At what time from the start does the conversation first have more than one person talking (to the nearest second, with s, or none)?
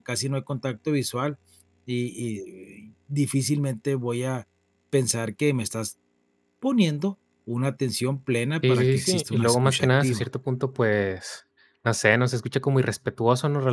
9 s